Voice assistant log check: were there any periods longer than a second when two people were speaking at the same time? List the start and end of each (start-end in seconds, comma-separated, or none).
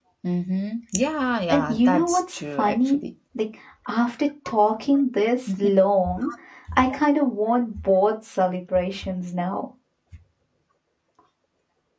1.5-3.0